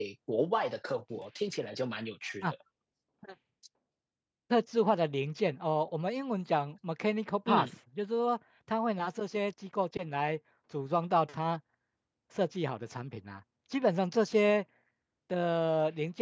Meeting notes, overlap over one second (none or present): none